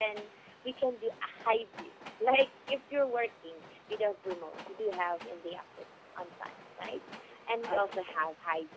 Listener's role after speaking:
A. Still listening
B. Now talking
A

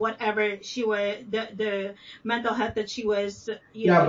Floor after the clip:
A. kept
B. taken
B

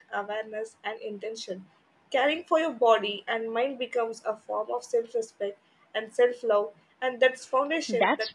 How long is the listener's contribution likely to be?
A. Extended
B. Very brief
A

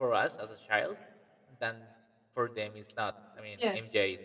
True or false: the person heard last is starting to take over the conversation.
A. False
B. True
A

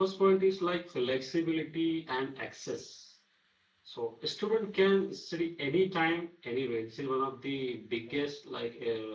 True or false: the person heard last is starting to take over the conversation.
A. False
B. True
A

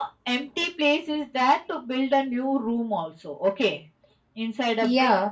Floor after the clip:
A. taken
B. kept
B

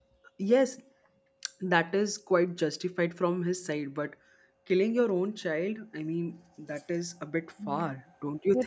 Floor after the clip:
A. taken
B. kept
A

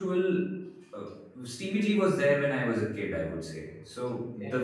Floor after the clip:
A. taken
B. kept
B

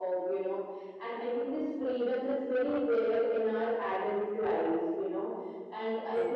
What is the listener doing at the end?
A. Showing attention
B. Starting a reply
A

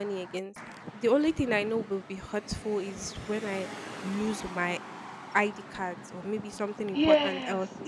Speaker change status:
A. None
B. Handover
B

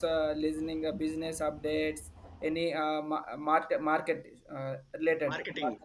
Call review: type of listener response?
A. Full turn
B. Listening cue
A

